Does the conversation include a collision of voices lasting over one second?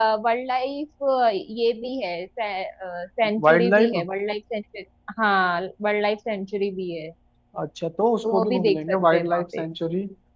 Yes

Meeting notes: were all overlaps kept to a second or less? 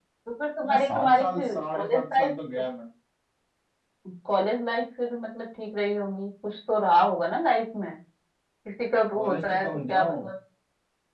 No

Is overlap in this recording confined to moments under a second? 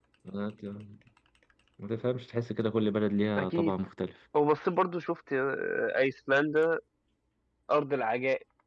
Yes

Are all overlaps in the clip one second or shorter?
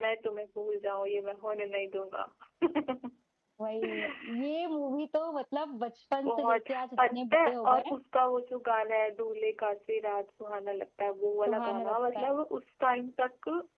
No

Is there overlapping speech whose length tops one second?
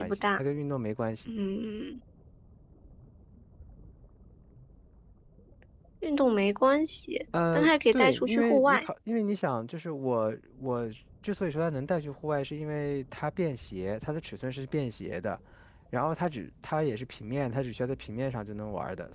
Yes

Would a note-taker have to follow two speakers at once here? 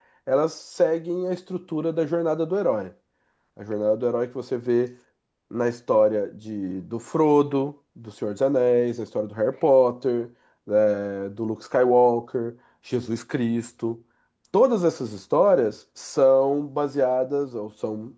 No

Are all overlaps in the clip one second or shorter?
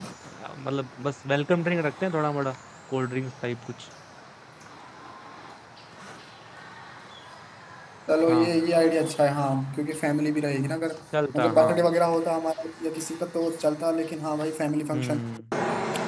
Yes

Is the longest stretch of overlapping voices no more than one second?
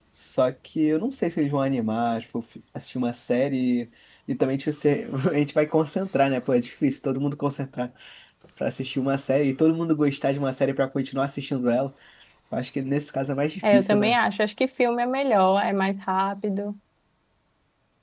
Yes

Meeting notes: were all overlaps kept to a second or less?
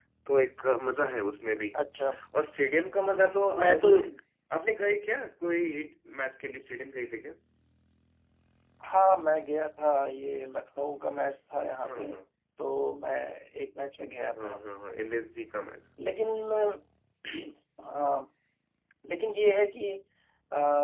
Yes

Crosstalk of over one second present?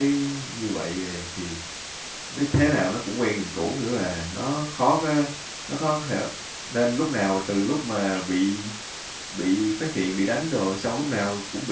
No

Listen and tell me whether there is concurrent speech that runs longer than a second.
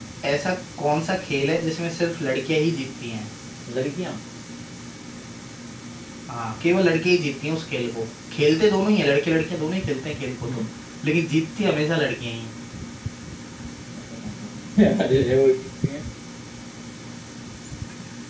No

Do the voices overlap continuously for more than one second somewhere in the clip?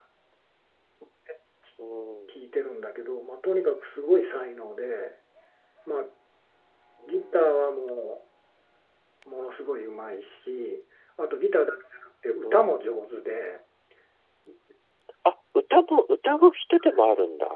No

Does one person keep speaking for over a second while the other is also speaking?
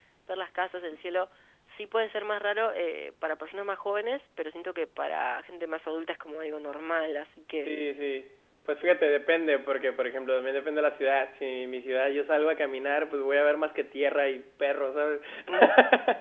No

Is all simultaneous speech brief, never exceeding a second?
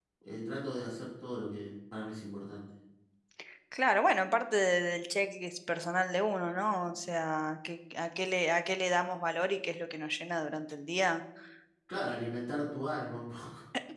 Yes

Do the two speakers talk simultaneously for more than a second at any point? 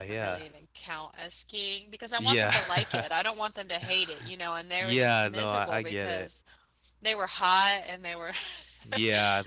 Yes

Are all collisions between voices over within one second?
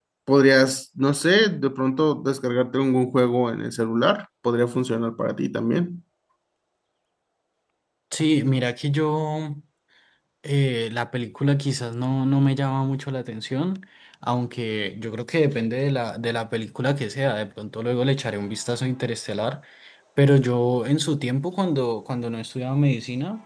Yes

